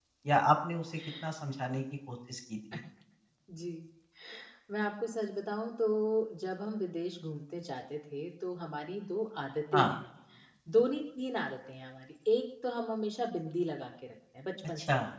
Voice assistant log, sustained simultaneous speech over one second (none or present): none